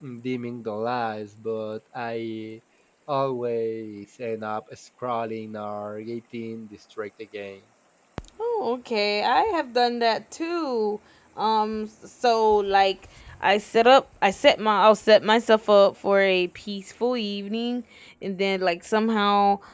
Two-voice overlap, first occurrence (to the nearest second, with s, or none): none